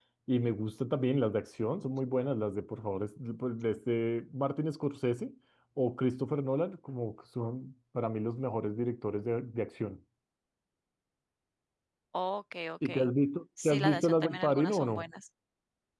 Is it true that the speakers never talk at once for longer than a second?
No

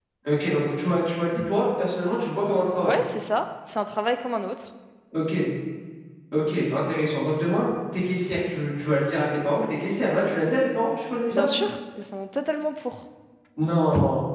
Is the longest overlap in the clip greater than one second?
No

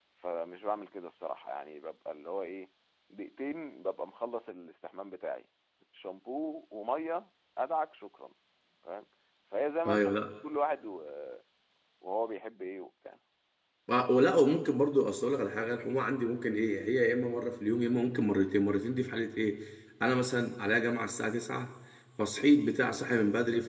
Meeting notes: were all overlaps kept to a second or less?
Yes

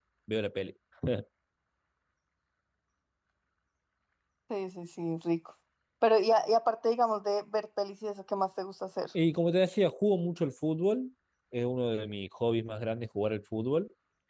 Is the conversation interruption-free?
Yes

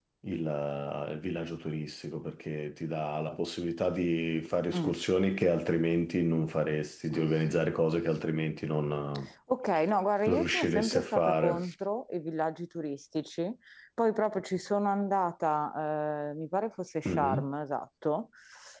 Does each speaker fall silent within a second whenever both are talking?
No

